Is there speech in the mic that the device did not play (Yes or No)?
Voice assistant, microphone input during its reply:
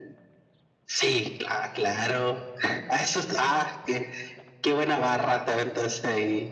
No